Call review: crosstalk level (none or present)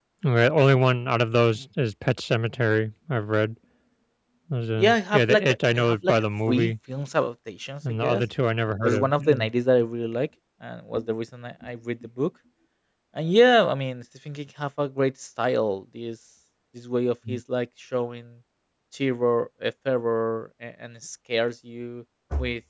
present